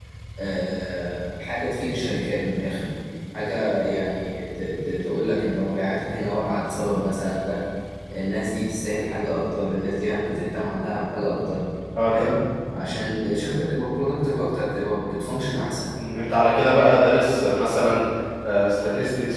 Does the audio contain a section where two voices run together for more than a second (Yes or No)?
No